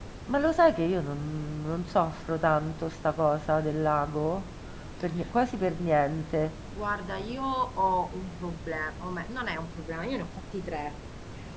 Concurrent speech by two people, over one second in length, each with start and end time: none

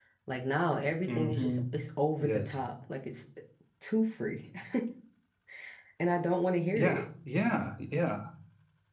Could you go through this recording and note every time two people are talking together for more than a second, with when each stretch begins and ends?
none

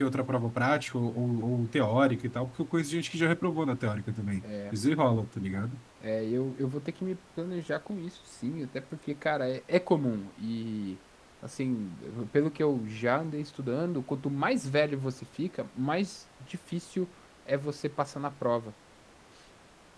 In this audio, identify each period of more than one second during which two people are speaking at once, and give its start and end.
none

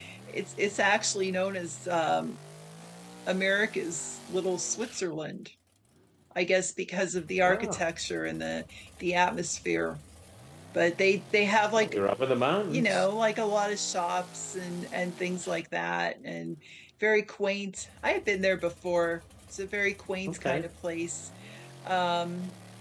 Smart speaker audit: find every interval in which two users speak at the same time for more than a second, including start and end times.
none

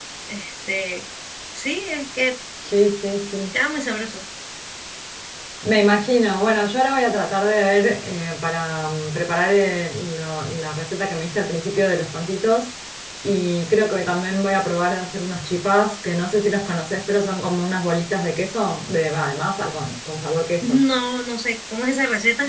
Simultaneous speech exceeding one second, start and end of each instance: none

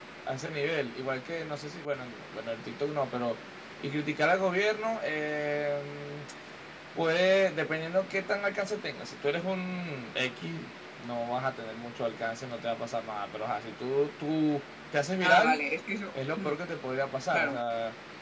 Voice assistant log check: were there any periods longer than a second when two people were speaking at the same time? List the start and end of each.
none

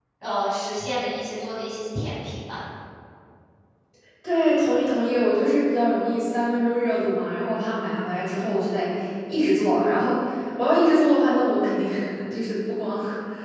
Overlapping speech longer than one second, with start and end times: none

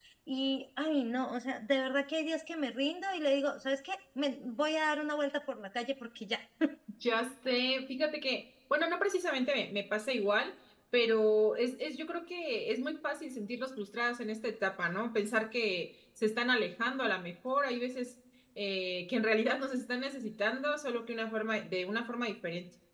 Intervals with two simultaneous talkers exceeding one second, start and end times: none

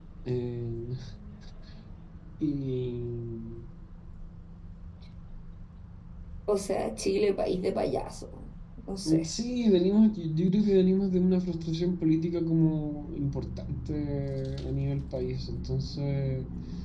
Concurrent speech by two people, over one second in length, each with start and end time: none

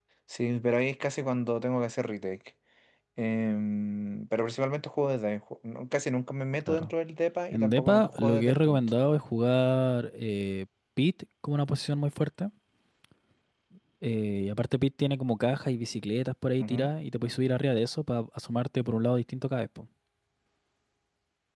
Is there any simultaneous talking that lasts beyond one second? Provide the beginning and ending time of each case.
7.5-8.8

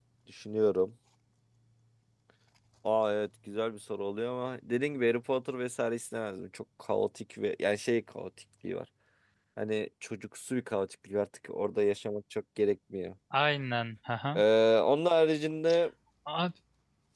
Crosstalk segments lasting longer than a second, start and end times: none

